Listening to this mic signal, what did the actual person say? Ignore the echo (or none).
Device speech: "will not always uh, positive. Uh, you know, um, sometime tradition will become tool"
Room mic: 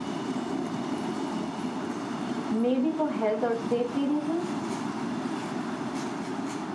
maybe for health or safety reasons.